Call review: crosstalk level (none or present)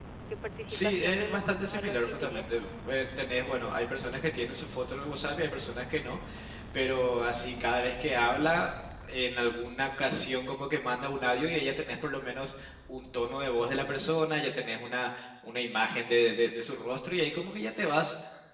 present